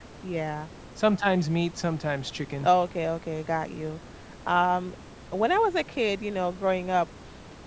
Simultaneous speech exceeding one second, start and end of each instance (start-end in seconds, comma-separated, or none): none